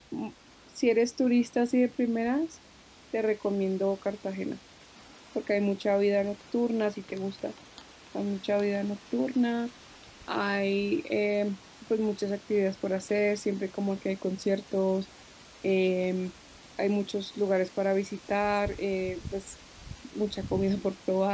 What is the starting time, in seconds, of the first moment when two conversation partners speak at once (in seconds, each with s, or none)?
none